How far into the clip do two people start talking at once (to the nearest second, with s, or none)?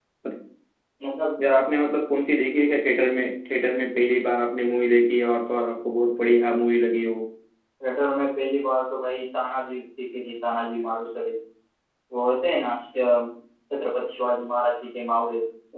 none